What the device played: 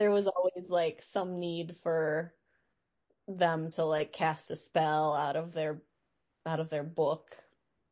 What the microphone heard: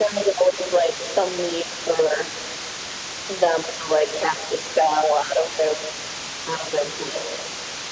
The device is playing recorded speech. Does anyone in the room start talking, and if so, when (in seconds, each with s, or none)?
none